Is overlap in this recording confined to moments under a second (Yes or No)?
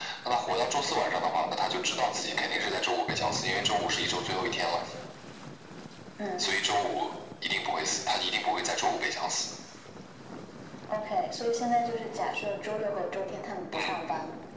Yes